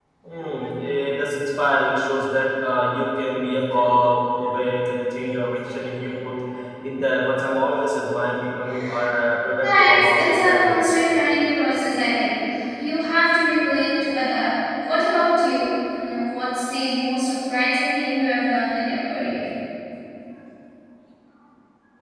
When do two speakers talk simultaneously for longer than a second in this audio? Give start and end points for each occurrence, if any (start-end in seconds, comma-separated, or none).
9.6-11.0